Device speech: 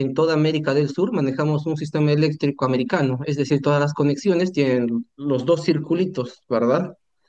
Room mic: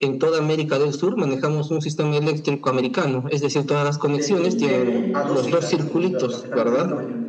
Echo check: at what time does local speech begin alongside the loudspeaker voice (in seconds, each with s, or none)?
4.2 s